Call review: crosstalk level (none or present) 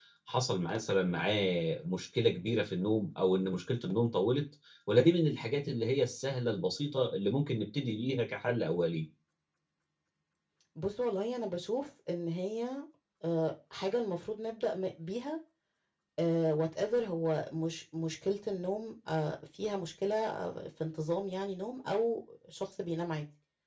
none